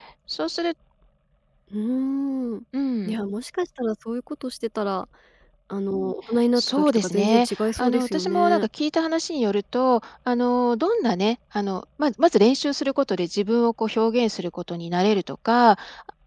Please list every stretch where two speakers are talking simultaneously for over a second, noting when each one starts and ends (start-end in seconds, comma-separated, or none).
6.5-8.7